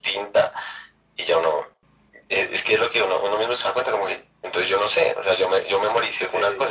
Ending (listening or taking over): taking over